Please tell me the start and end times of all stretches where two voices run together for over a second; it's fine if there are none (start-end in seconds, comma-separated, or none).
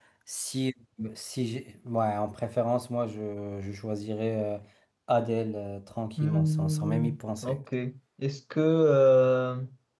6.2-7.6